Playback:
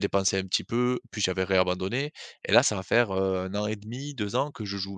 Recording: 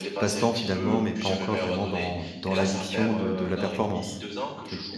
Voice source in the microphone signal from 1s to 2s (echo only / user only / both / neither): both